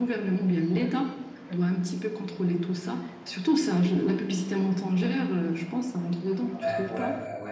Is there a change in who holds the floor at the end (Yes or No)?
Yes